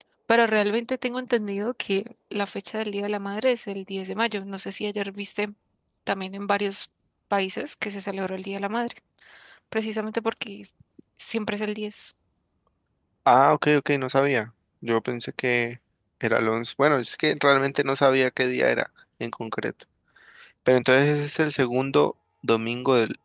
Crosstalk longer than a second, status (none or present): none